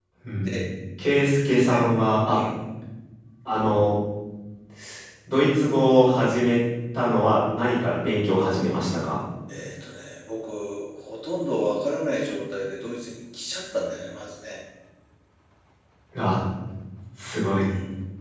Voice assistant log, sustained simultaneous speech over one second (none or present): none